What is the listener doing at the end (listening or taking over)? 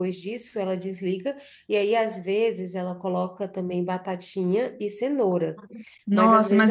taking over